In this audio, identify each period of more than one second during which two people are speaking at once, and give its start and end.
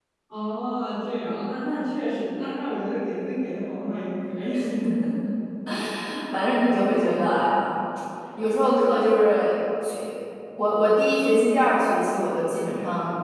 none

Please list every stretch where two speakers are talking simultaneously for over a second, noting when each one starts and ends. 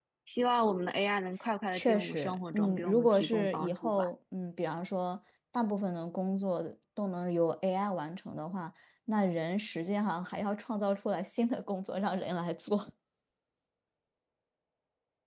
1.7-4.1

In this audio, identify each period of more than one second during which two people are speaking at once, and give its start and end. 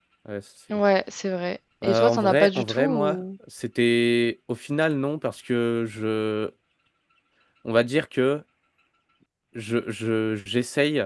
1.8-3.2

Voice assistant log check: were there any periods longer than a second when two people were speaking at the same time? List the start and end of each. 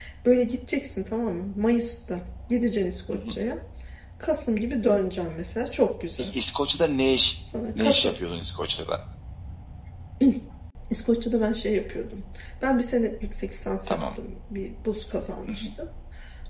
none

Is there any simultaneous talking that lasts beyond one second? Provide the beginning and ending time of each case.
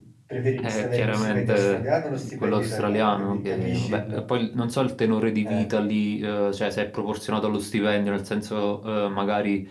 0.7-4.2

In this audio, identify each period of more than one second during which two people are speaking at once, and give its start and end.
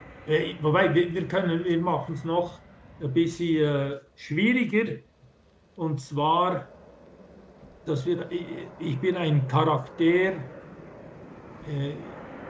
none

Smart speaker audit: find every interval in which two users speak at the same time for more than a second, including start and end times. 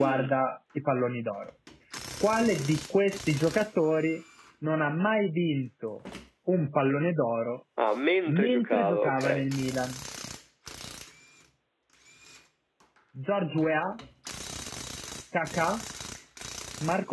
8.3-9.5

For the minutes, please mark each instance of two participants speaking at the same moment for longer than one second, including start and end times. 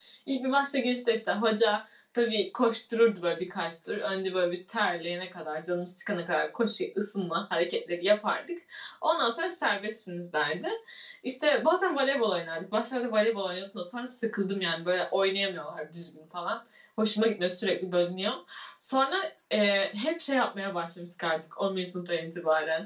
none

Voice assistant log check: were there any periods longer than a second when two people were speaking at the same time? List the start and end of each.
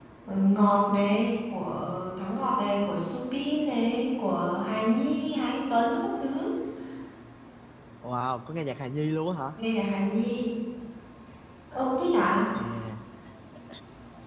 none

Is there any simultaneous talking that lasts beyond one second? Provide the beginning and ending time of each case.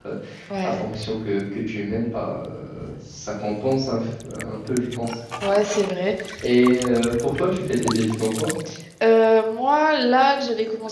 none

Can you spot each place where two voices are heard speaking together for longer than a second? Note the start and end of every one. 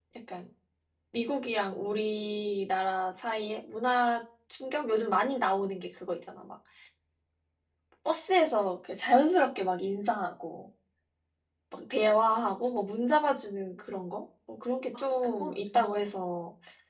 15.0-16.3

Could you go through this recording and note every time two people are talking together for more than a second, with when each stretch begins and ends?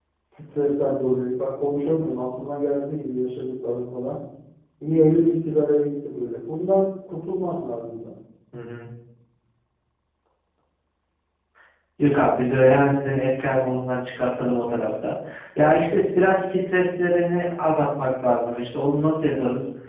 none

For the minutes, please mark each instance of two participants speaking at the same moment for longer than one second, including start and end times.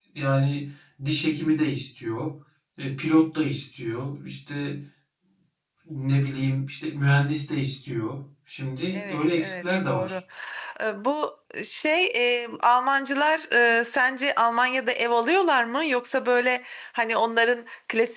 8.9-10.2

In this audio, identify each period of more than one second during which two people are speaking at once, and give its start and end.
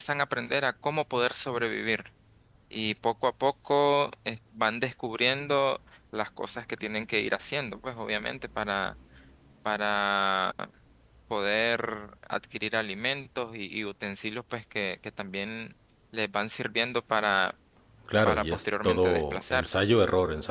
18.2-19.8

